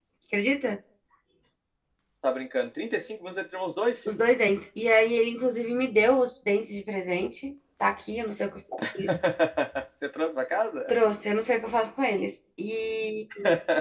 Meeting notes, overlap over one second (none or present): none